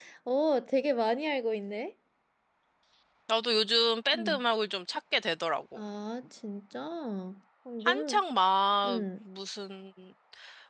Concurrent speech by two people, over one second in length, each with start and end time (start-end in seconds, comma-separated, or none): none